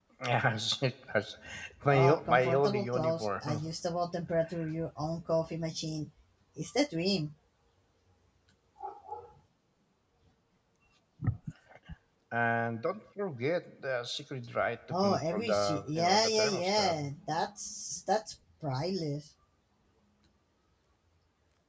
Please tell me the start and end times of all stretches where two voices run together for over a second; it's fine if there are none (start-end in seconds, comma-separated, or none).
1.9-3.7, 14.9-17.0